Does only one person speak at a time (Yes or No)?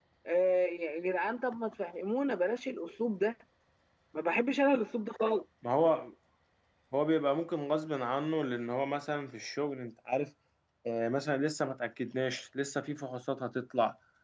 Yes